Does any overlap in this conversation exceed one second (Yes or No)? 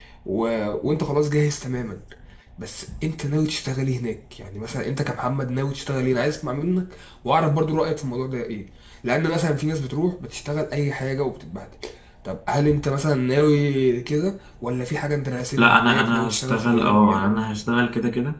Yes